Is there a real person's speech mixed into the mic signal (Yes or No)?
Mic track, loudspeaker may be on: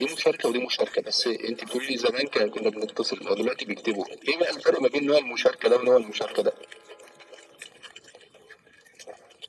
No